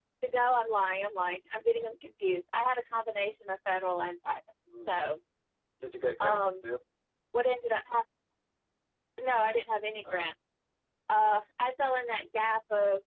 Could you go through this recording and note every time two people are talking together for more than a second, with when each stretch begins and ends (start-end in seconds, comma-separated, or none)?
none